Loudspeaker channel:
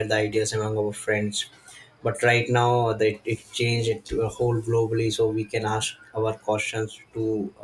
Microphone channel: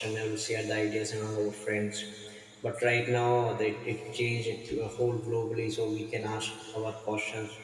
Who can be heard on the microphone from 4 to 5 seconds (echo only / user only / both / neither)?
echo only